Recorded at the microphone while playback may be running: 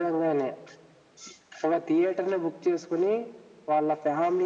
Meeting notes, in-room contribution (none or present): none